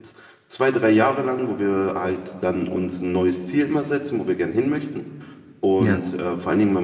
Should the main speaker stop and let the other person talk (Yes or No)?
No